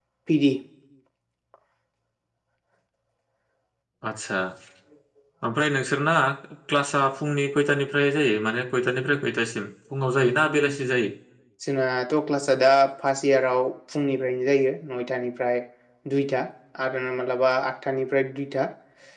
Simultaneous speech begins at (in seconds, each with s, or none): none